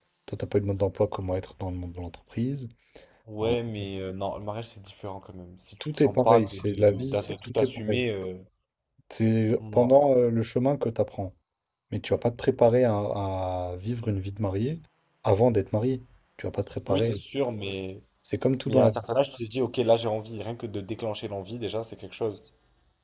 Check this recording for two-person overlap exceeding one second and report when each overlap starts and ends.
5.8-8.0

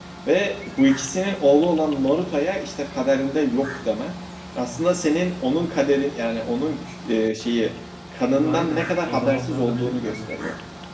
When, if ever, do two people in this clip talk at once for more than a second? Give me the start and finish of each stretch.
8.4-10.3

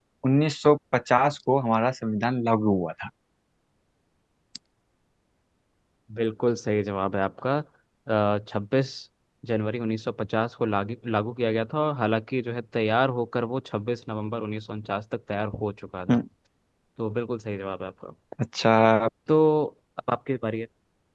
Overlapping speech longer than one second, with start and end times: none

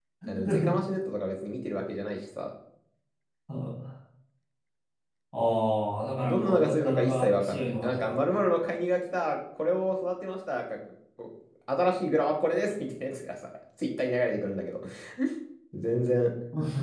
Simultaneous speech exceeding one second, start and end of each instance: 6.2-8.1

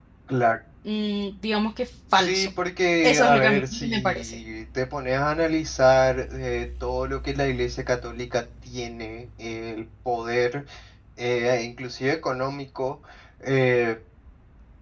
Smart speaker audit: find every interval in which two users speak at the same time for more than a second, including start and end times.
3.0-4.4

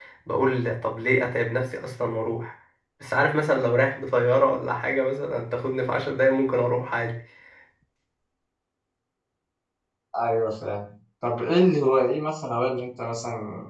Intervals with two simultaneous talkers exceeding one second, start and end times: none

